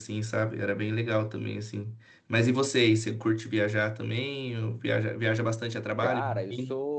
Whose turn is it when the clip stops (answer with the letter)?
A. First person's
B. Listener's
B